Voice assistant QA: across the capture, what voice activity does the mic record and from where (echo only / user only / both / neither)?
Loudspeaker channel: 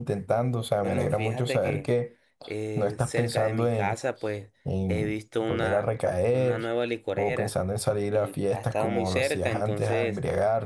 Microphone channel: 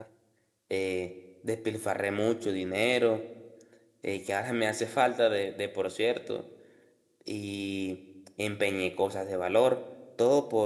user only